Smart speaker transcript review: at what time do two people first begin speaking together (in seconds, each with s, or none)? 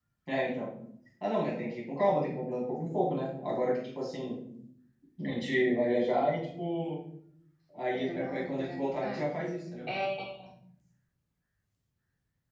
7.9 s